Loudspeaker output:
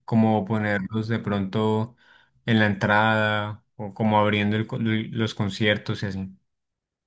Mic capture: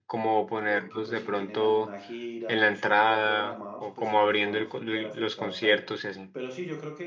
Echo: present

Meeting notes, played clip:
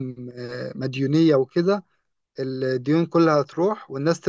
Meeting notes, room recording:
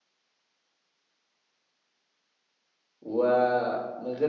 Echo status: none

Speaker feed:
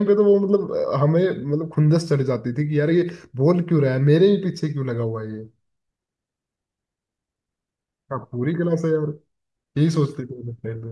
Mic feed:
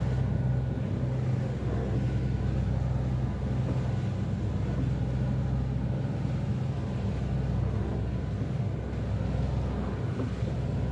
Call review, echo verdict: none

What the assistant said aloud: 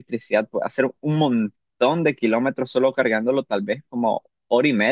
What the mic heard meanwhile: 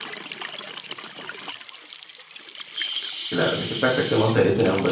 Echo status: none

